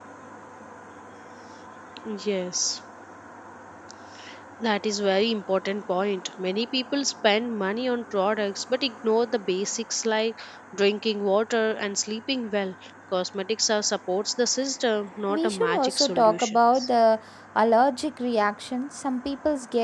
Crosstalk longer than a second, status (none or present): present